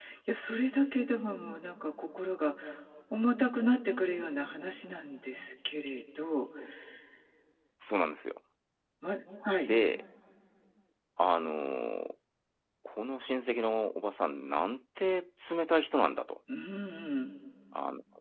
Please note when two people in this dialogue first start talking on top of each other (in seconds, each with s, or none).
none